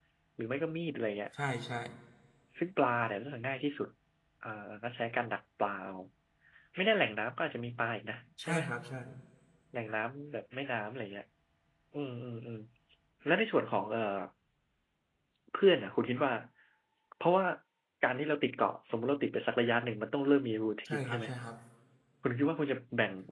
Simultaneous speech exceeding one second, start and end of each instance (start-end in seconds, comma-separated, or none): none